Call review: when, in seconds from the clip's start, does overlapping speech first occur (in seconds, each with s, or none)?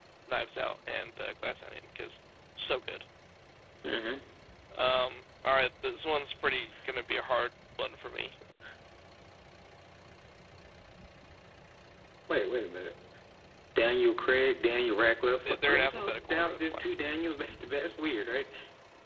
15.4 s